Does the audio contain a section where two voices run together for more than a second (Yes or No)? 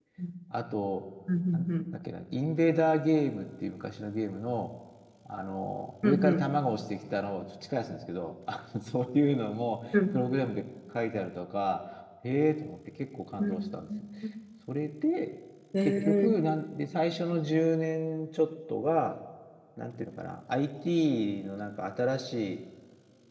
No